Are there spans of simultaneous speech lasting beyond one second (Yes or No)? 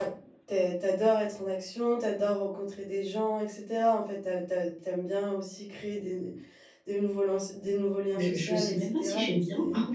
Yes